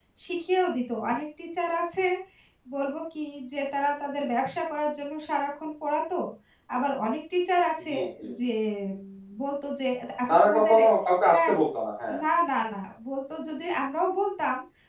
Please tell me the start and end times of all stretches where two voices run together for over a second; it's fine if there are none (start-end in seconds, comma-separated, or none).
none